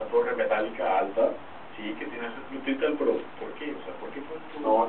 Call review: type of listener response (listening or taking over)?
taking over